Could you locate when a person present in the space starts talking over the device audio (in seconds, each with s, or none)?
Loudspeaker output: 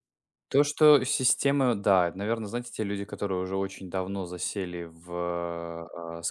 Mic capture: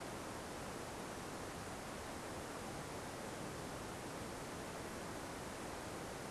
none